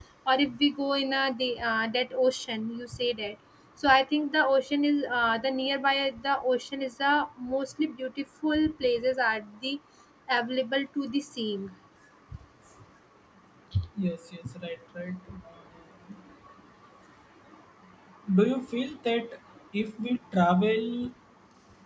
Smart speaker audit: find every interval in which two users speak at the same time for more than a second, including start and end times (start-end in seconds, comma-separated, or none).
none